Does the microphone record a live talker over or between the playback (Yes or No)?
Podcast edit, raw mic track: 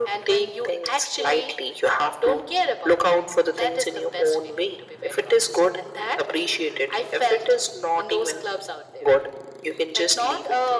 No